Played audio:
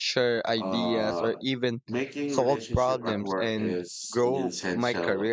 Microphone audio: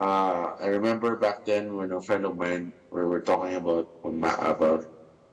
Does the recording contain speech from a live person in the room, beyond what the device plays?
Yes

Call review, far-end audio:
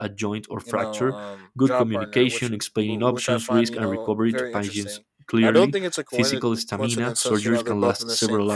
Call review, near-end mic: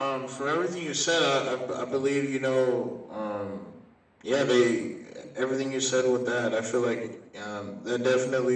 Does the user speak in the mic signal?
Yes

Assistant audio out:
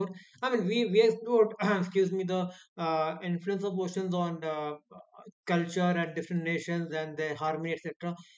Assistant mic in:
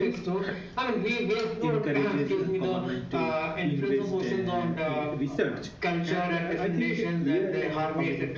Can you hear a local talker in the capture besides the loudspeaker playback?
Yes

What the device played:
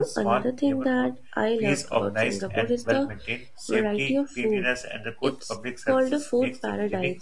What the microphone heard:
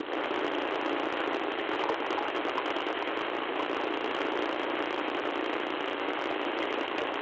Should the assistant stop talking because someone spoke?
No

